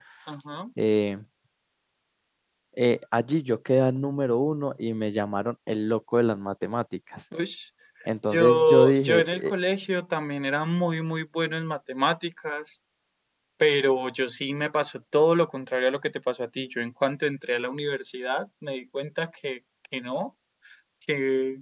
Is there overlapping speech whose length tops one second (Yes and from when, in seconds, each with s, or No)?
Yes, from 8.3 s